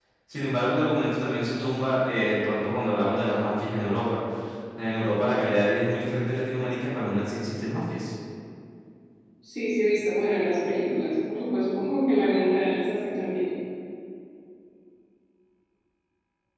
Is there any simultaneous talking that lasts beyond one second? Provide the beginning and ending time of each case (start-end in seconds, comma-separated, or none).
none